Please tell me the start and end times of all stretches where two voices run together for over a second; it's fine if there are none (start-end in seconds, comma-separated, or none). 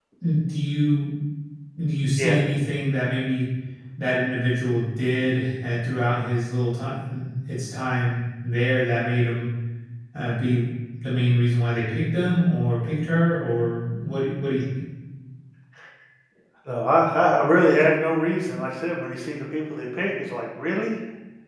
none